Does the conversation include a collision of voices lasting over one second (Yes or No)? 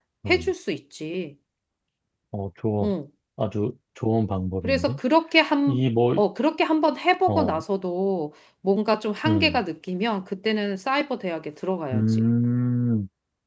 No